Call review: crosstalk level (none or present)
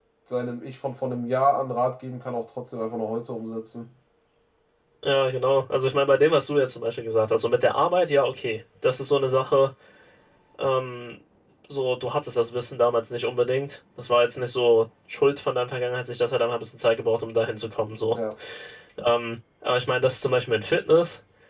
none